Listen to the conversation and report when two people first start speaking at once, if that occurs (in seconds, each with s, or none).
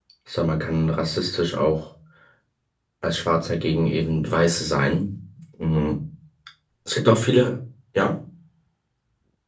none